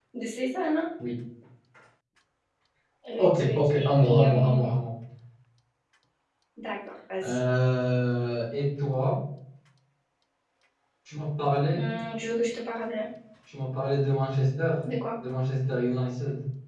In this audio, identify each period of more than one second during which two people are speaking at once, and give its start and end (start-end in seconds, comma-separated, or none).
3.2-4.6